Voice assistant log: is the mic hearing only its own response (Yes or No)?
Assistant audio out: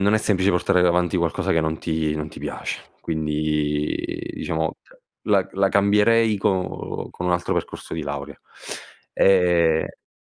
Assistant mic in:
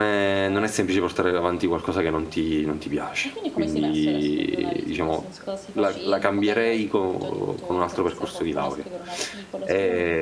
No